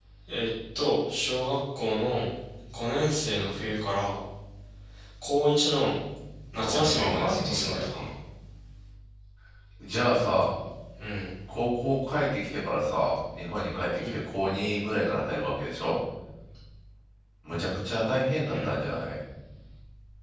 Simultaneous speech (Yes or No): Yes